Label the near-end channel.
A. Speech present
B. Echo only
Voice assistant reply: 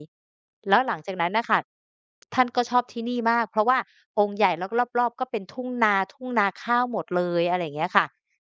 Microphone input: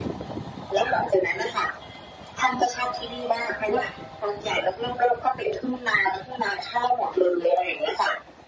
B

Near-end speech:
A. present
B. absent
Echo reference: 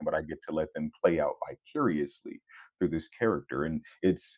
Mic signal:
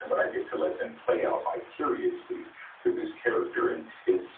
B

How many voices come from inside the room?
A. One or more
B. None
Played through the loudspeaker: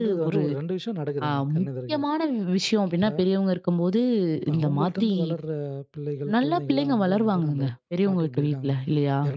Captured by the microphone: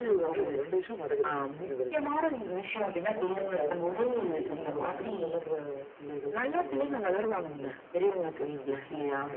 A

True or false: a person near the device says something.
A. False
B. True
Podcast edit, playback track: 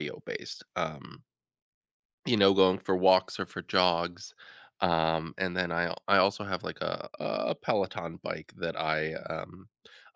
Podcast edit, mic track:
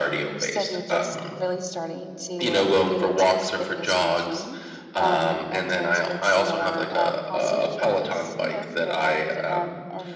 B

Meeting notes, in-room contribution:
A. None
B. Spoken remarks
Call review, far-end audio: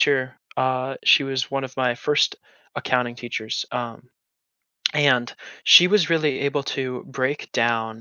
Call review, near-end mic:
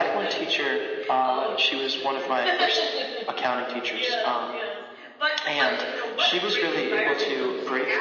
B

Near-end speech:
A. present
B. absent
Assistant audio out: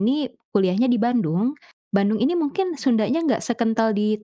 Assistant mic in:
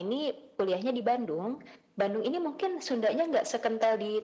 B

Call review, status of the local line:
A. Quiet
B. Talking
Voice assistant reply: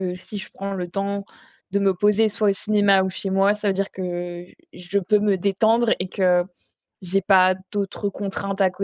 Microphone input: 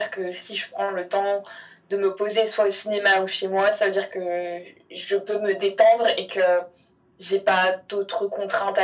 A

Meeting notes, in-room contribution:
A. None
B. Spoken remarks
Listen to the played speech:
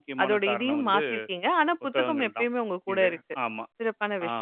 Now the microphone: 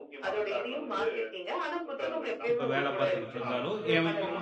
B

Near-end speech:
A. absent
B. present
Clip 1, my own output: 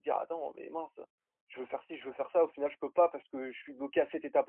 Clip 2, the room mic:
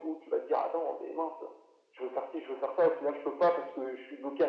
A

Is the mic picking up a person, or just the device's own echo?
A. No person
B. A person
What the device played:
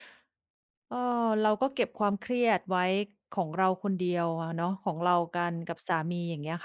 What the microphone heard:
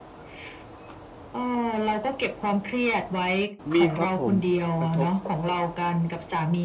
B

